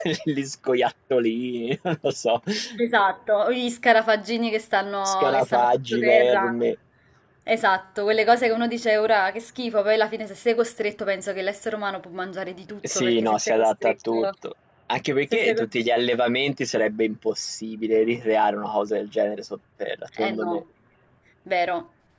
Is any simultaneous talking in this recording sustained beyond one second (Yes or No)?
Yes